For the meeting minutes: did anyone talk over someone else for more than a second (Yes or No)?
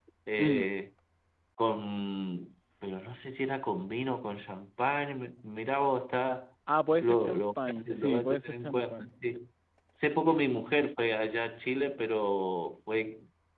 Yes